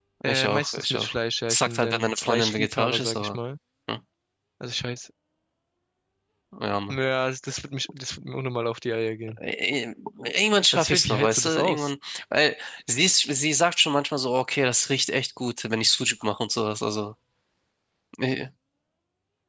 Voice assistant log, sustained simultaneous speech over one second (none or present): present